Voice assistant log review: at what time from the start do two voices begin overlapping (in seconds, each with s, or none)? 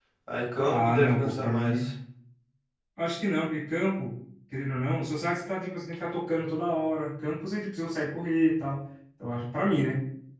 0.7 s